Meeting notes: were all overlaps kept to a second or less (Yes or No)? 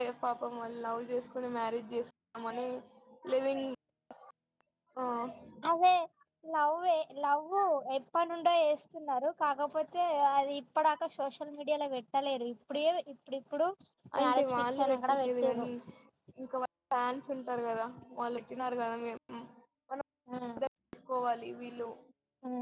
No